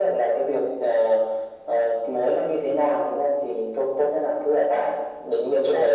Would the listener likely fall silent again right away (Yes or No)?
No